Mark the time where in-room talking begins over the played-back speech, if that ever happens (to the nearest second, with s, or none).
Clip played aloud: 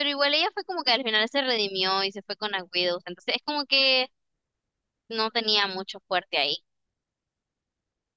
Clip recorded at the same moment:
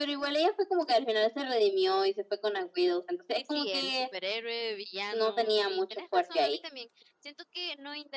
3 s